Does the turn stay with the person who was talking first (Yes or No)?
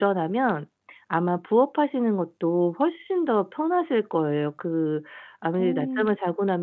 Yes